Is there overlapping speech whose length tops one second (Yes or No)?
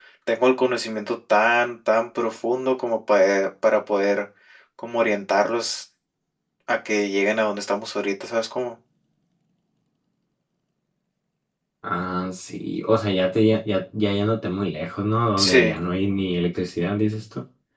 No